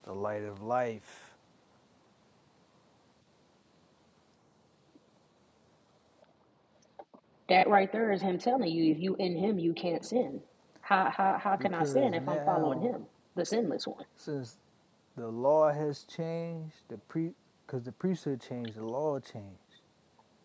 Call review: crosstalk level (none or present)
present